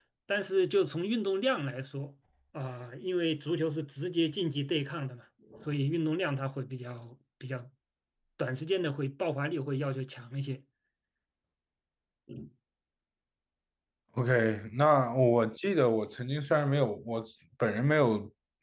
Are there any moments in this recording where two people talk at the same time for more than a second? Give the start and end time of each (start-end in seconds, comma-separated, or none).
none